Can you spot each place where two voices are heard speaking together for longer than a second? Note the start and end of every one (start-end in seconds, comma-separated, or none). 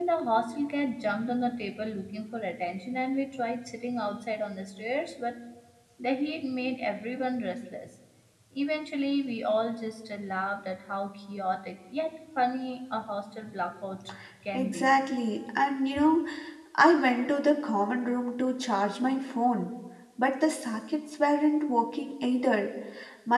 none